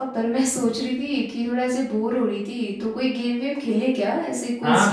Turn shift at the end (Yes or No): Yes